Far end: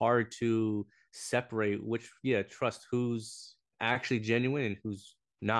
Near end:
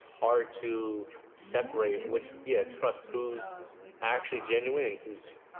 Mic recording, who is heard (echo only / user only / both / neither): both